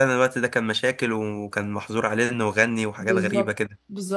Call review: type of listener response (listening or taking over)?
taking over